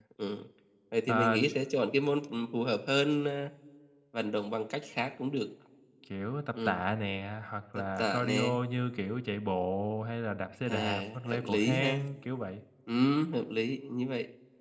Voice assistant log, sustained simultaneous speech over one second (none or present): present